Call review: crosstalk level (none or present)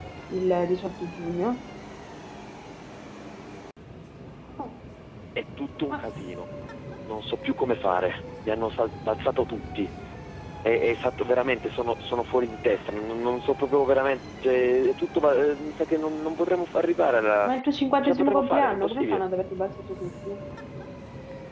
present